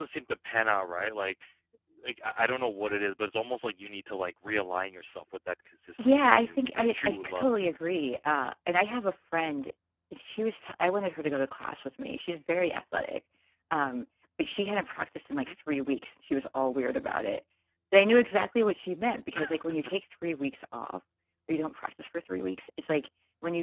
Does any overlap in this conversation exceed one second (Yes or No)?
Yes